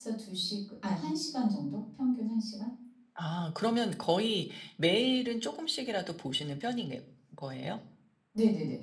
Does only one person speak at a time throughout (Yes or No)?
Yes